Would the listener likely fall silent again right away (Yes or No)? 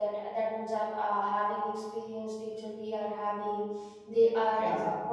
Yes